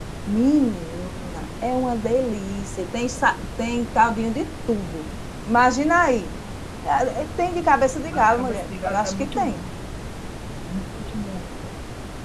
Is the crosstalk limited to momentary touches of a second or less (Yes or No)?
No